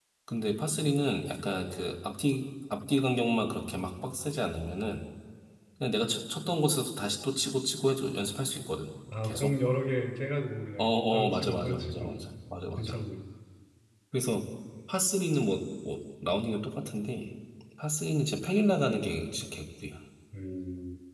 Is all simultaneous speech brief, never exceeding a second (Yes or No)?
No